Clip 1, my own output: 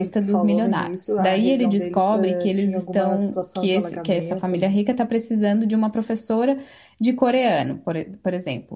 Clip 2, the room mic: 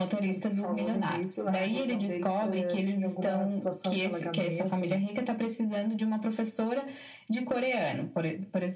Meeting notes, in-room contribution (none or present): present